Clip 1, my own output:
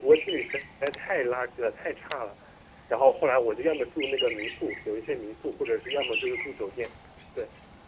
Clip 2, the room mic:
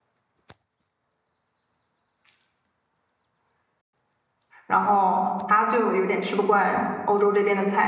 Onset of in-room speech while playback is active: 4.7 s

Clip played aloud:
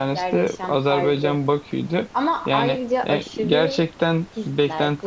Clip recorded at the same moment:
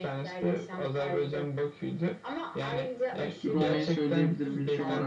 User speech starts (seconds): 3.4 s

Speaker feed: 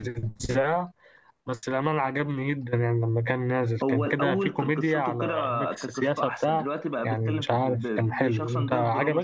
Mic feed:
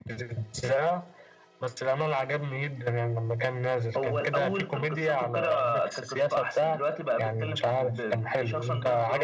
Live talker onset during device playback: none

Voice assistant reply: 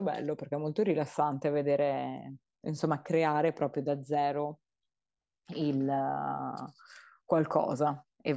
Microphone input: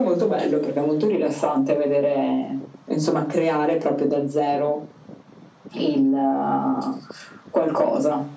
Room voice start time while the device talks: none

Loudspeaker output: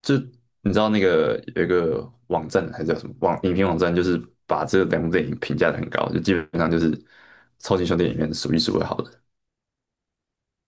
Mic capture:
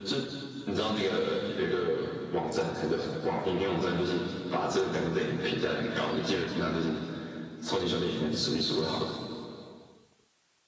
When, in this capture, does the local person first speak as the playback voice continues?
none

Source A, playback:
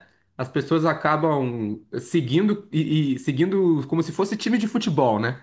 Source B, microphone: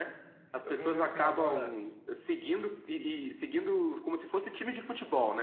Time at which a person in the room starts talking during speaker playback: 0.6 s

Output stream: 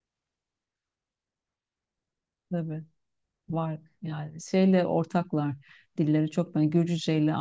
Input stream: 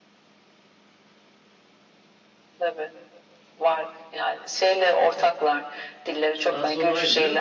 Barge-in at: 6.5 s

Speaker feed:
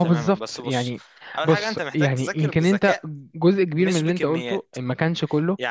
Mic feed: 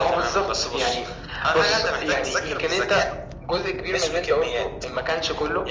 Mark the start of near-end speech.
none

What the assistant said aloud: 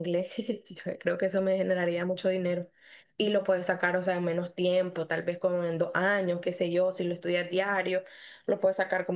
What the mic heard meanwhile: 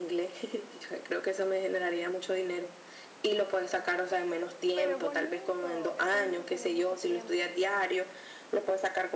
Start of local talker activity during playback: 4.7 s

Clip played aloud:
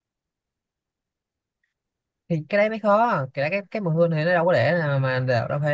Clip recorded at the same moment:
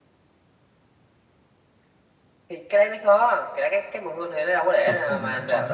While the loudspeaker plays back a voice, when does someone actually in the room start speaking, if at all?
4.8 s

